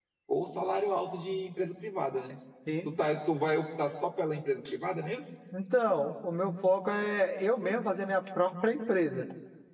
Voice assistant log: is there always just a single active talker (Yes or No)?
Yes